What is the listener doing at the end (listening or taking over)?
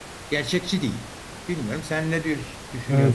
taking over